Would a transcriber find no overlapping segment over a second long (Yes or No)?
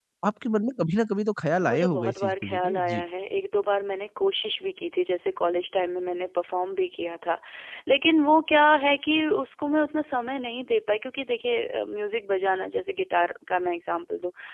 No